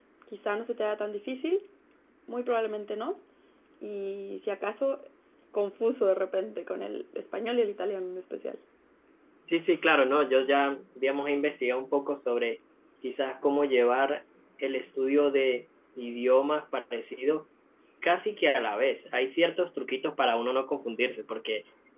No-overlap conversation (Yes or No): Yes